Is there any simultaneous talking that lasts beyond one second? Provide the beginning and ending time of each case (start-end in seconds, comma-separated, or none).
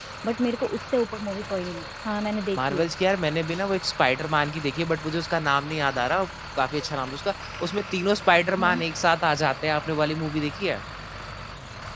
none